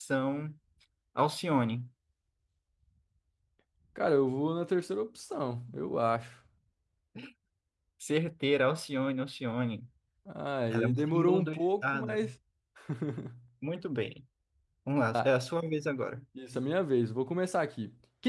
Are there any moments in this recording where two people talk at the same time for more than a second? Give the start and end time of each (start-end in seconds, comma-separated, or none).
10.7-12.2